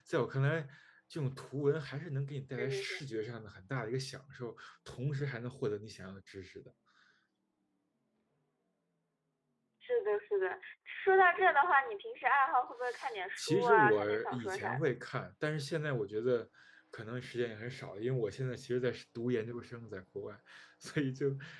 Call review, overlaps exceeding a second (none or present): present